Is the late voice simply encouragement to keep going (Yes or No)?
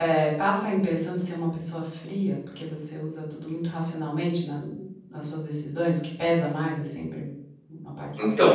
No